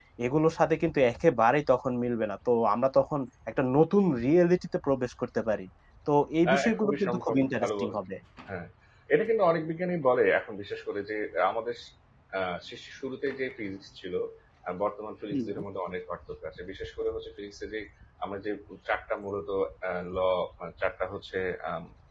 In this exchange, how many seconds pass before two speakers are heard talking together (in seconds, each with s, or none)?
6.5 s